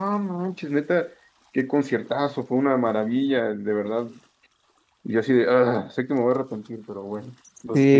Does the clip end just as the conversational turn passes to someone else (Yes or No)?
Yes